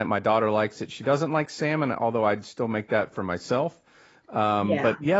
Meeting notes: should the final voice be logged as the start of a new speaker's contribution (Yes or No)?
No